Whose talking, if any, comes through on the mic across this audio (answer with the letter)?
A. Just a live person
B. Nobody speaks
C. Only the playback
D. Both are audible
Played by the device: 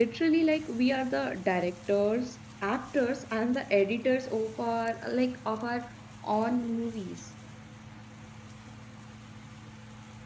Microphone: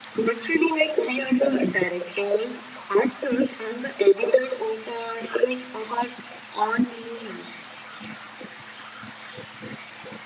C